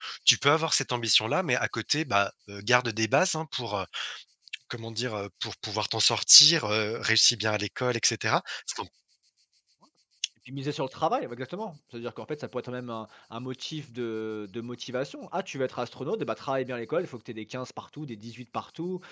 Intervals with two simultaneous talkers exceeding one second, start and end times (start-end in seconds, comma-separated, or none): none